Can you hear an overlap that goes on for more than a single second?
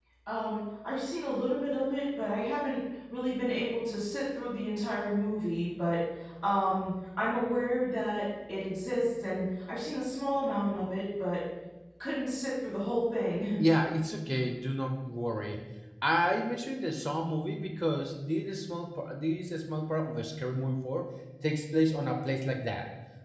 No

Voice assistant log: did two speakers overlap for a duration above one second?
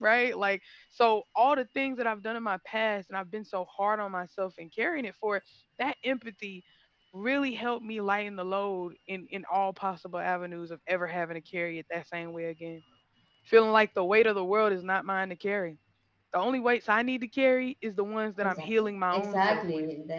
Yes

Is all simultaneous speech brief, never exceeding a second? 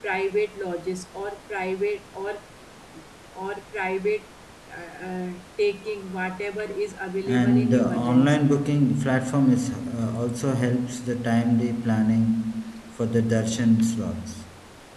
No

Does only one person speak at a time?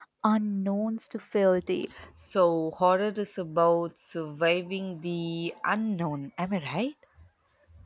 Yes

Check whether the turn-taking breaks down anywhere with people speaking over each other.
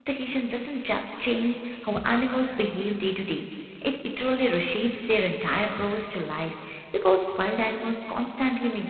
No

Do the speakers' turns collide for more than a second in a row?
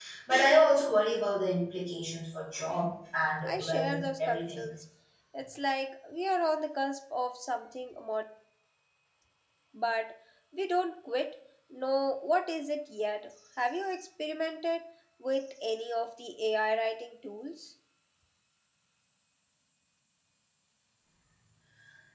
Yes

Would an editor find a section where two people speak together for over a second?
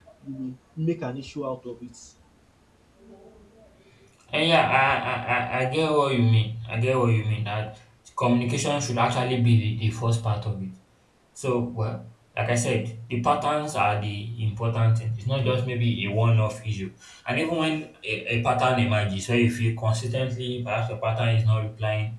No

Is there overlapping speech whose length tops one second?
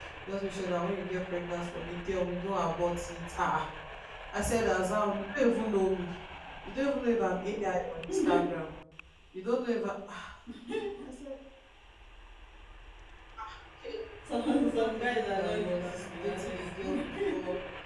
Yes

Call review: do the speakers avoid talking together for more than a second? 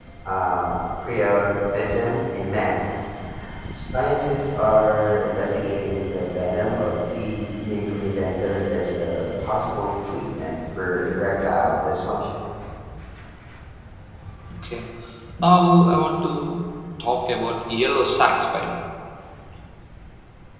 Yes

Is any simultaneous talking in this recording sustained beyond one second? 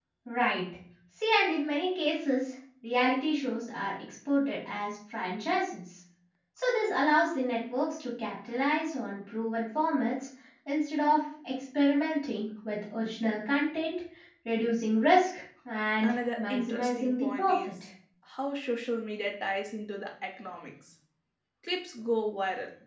Yes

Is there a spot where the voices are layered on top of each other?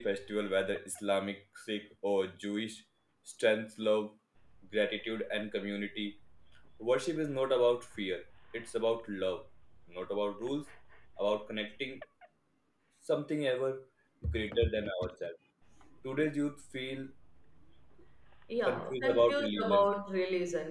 Yes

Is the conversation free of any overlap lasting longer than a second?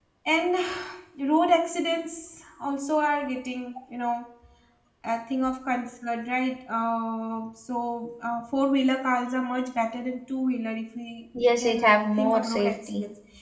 No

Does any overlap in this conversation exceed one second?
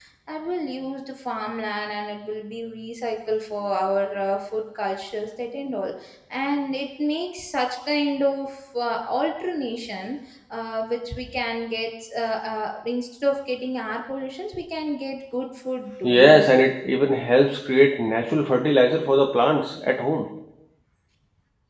No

